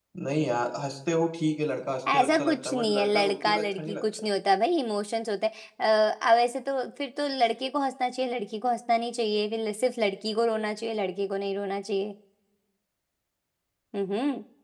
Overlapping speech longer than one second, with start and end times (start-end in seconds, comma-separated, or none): 2.1-4.3